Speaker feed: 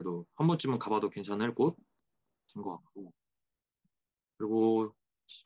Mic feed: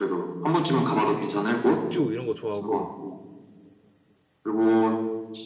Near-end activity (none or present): present